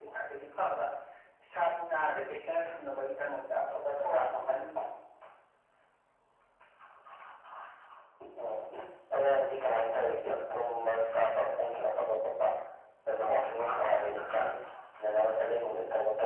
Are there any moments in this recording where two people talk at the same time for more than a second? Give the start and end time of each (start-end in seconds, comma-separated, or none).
none